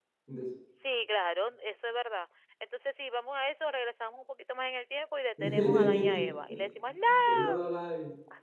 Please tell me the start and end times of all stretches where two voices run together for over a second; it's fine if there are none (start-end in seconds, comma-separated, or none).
5.4-6.6